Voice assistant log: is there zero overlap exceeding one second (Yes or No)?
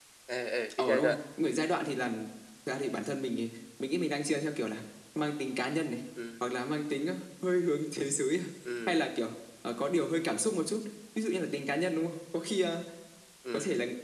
Yes